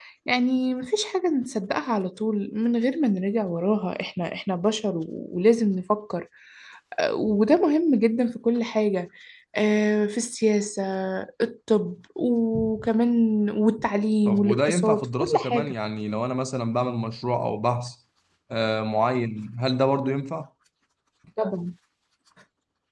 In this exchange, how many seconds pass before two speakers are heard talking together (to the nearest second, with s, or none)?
14 s